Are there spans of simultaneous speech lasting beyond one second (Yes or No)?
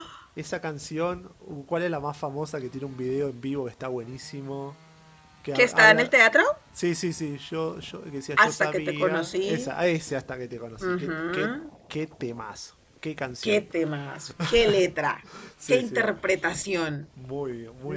Yes